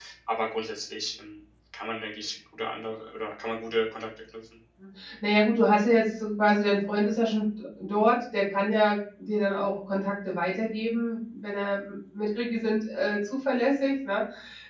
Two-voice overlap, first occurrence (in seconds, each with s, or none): none